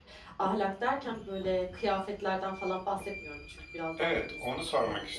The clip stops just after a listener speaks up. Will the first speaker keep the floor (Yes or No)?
No